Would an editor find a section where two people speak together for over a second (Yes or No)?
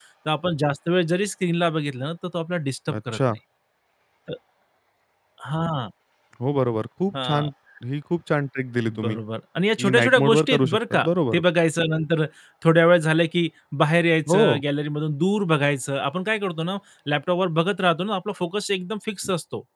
Yes